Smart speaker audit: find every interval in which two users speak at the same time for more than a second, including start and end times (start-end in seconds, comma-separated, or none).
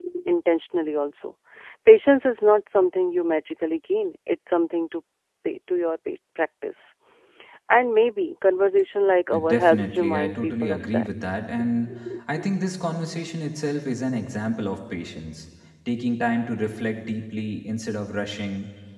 9.3-11.1